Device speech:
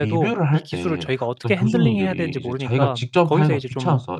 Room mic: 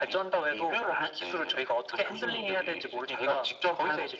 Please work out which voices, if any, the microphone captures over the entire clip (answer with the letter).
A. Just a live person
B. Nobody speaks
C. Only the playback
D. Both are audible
C